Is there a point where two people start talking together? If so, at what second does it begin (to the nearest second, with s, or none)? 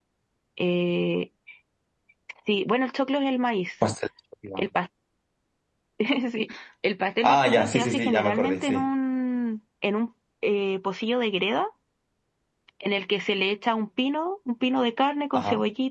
7 s